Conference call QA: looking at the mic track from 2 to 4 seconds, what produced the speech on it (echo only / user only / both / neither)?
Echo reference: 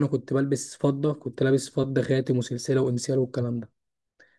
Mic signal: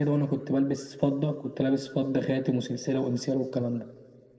echo only